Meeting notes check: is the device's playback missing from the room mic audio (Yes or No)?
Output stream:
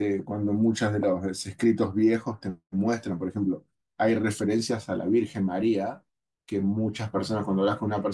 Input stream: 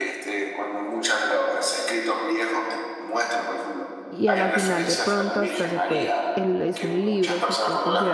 No